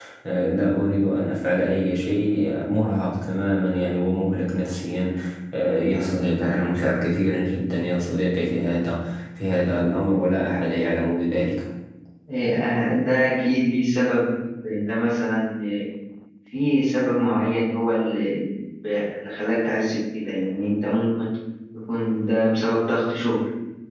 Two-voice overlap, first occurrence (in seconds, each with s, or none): none